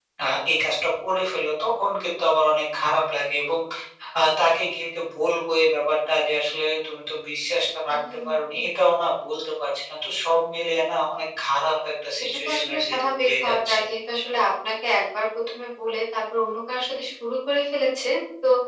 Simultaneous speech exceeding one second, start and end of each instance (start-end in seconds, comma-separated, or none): 12.4-13.8